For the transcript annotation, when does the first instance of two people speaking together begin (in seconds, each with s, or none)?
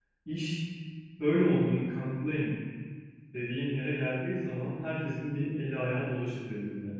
none